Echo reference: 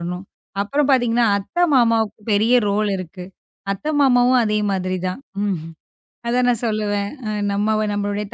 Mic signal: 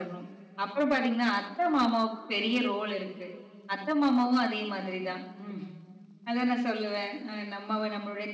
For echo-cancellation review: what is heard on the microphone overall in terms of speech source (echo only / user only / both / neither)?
echo only